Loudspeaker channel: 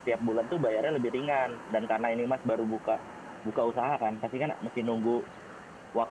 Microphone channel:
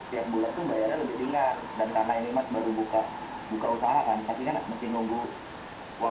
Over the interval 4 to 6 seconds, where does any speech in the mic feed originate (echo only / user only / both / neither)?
echo only